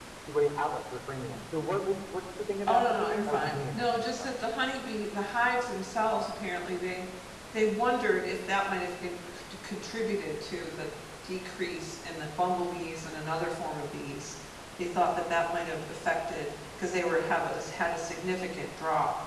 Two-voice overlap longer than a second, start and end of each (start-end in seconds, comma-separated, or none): 2.7-4.3